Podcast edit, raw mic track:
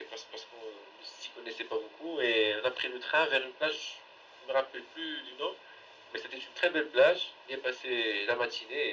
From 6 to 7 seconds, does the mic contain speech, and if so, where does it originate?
echo only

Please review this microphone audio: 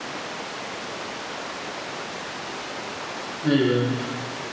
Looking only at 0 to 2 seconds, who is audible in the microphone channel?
neither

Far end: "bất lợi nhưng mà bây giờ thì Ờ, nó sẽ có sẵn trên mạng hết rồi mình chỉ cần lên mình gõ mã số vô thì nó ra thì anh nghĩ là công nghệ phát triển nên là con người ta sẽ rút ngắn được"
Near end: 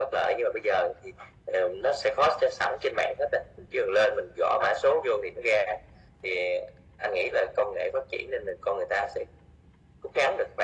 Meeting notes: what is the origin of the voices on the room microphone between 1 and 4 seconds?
echo only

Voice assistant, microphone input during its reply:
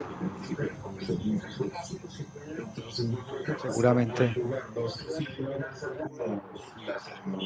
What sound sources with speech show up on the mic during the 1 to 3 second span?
echo only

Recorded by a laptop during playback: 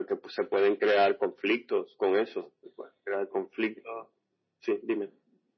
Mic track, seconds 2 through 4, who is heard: echo only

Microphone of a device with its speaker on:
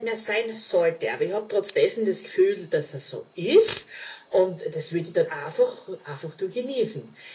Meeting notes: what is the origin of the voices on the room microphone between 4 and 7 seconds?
echo only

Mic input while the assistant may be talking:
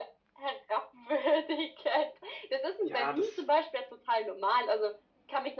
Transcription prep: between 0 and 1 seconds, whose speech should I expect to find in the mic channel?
echo only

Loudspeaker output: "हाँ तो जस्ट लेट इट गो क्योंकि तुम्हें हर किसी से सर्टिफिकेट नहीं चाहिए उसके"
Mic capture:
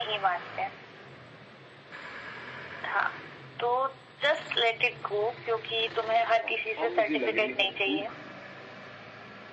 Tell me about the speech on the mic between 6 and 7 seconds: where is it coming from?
both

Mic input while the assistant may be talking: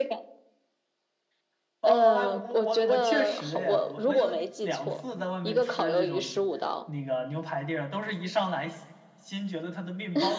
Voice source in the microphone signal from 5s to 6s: both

